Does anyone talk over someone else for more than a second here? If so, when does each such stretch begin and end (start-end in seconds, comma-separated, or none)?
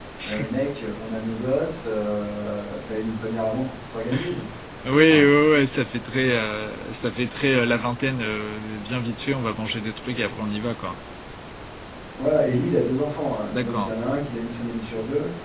none